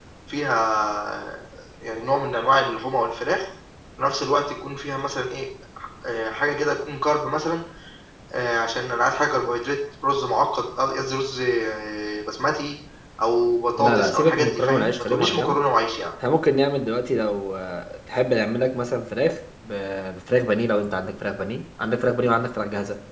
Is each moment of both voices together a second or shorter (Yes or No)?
No